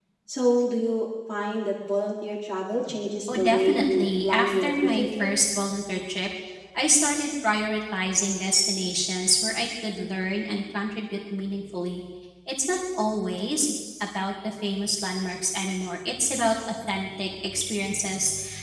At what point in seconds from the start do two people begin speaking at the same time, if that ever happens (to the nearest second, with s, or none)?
3 s